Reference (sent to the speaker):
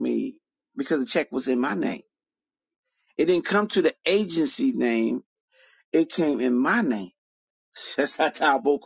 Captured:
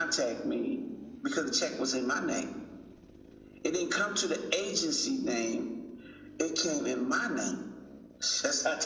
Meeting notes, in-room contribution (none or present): none